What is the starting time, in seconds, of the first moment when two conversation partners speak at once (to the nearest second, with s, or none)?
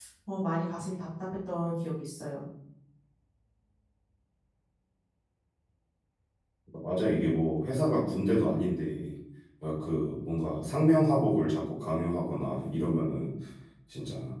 none